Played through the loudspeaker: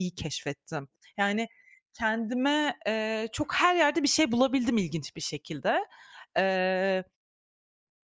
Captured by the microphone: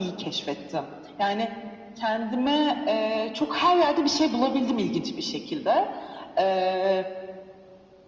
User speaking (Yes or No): No